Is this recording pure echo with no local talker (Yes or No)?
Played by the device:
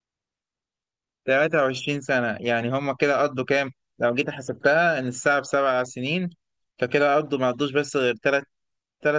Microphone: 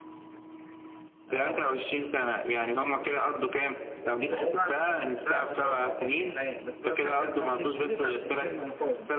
No